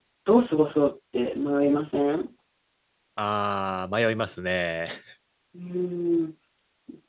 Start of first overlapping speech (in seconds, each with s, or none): none